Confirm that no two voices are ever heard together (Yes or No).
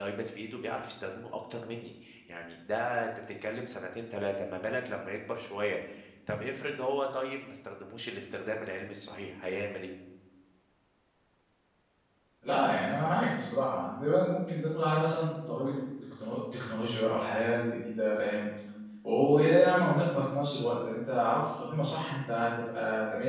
Yes